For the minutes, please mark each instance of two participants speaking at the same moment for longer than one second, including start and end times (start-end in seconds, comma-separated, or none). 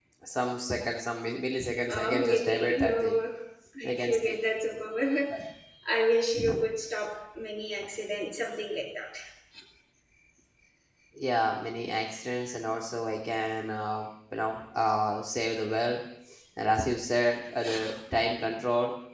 1.9-3.2